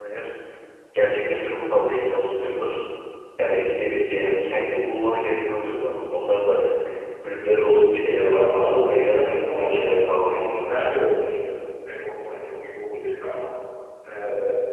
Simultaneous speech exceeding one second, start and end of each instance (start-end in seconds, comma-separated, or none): 8.2-10.8